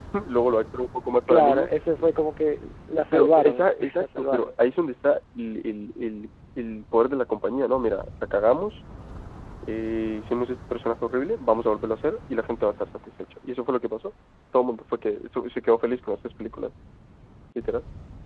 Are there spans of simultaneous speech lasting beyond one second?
Yes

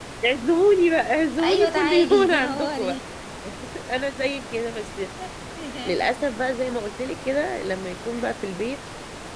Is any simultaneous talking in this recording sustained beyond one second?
Yes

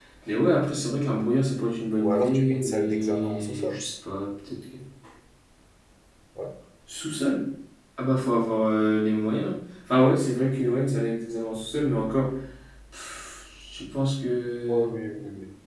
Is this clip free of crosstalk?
No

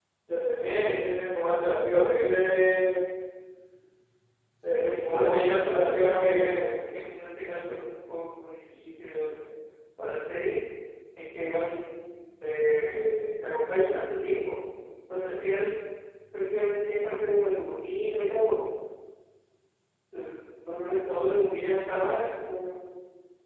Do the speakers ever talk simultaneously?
Yes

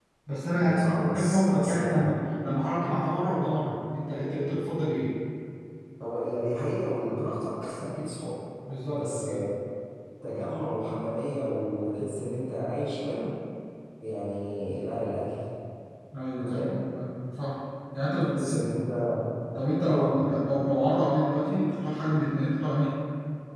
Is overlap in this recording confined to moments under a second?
No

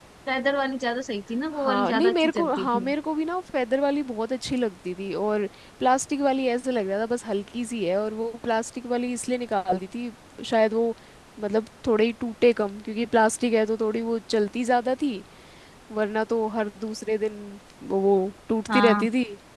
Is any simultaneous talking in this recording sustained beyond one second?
Yes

